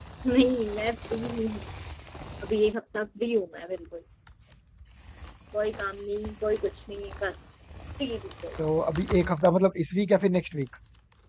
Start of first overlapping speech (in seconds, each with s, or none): none